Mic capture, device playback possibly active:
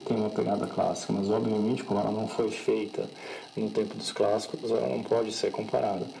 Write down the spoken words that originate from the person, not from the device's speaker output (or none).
none